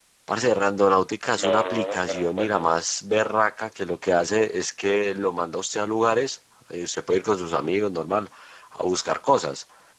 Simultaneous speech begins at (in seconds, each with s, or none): 1.3 s